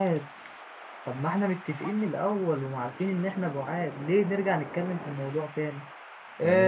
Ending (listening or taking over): listening